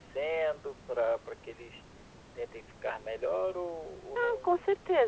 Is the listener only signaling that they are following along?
No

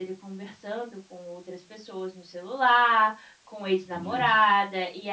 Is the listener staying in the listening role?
Yes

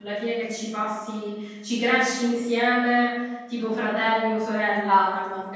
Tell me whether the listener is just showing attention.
No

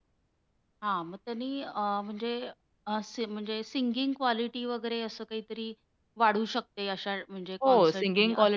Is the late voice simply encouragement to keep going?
No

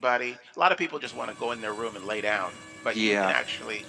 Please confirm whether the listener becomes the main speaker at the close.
No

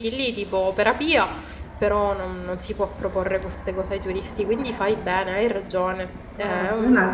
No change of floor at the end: No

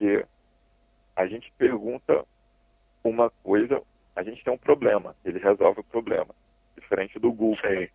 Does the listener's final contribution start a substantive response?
No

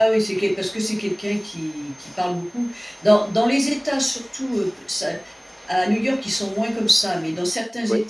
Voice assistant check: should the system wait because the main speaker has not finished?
Yes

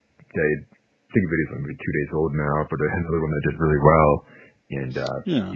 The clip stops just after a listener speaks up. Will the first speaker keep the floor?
Yes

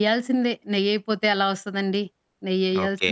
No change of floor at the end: No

